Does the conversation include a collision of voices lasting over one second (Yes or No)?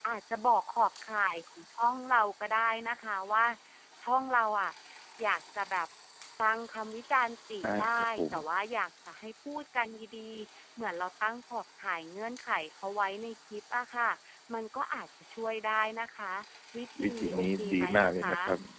Yes